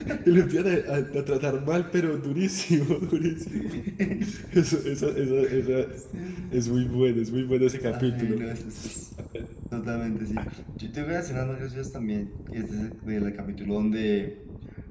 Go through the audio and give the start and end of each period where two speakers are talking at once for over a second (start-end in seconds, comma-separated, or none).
none